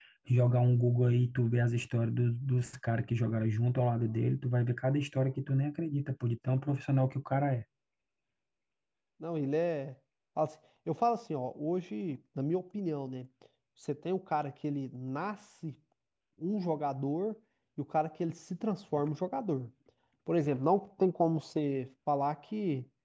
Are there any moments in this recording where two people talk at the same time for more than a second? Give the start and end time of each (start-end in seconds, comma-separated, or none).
none